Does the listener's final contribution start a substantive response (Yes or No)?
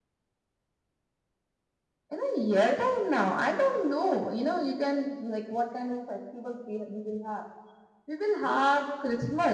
No